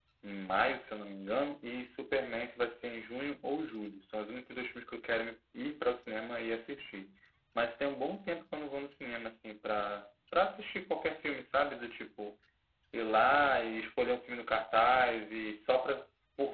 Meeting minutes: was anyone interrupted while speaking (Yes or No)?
No